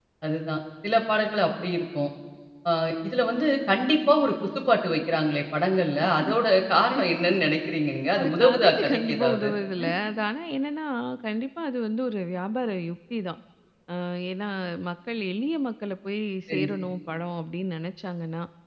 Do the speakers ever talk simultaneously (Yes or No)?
Yes